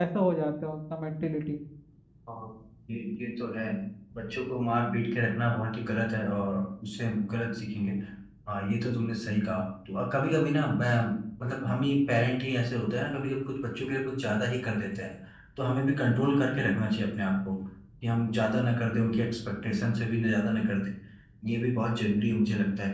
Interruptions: none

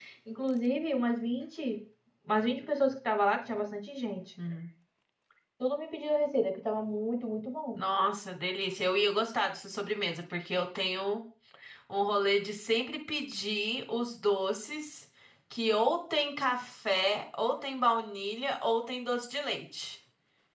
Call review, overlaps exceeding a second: none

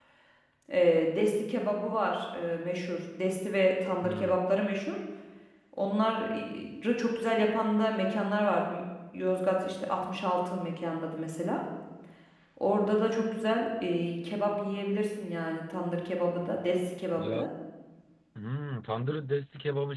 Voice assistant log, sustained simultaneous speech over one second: none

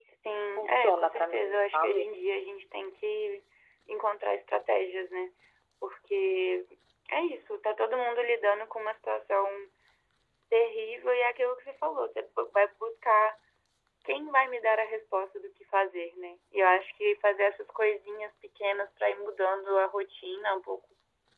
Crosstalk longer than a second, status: present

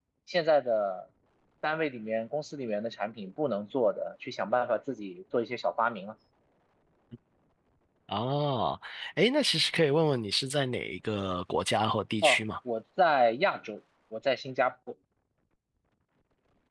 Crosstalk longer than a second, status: none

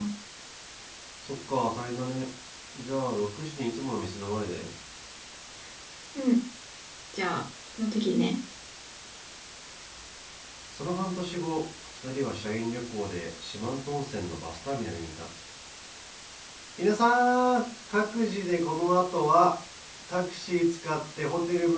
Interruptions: none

